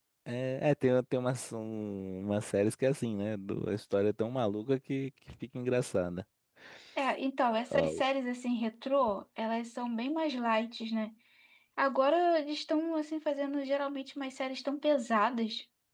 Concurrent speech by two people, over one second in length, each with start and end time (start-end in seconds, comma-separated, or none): none